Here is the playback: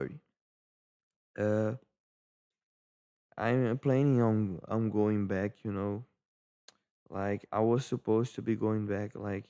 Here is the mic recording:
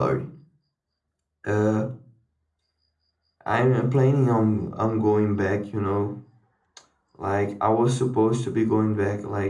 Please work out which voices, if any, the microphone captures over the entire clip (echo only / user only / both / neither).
echo only